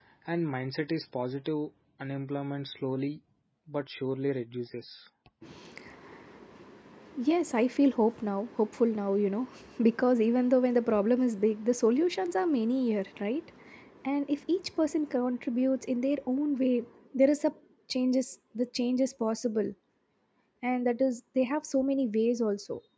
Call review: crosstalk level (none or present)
none